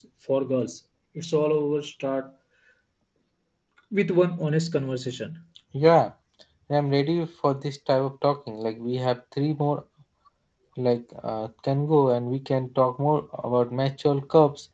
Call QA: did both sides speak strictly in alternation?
Yes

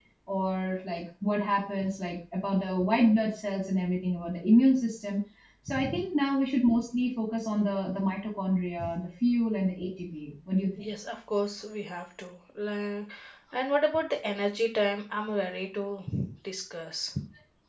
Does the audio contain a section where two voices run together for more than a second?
No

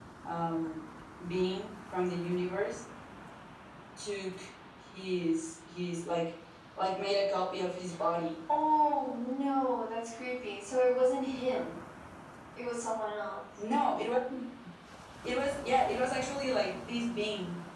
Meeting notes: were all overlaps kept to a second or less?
Yes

